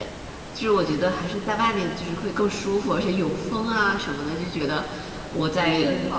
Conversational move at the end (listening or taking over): listening